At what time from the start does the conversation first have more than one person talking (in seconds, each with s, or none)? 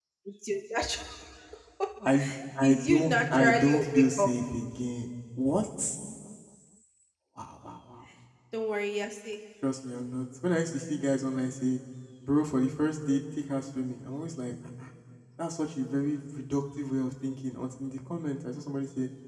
2.6 s